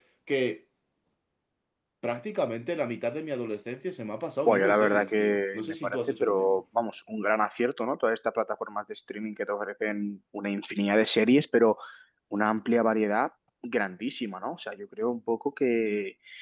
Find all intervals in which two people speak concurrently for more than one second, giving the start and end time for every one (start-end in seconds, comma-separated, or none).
4.5-6.6